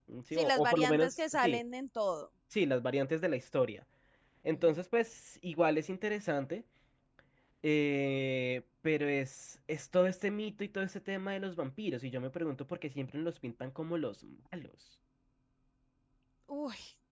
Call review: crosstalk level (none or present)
present